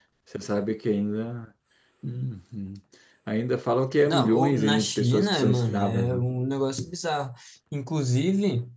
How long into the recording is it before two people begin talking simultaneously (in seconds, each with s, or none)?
4.1 s